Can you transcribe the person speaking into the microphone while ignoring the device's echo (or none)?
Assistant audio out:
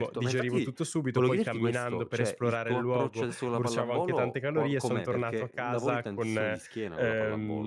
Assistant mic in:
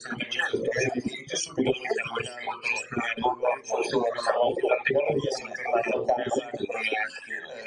none